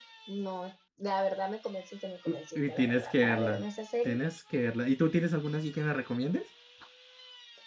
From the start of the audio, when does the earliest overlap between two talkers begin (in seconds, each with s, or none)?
2.3 s